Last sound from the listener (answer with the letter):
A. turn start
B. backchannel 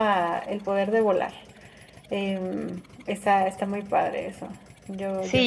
A